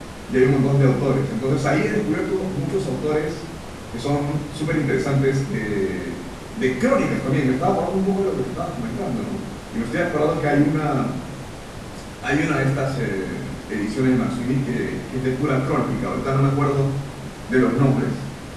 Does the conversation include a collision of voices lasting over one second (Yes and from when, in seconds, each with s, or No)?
No